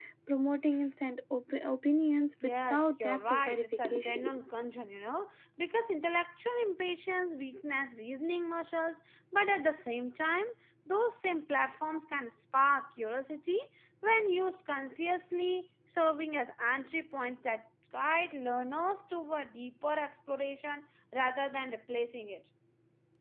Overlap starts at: 2.4 s

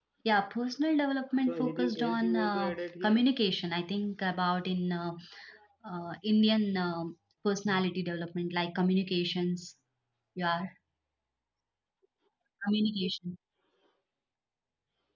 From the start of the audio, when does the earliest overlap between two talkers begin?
1.5 s

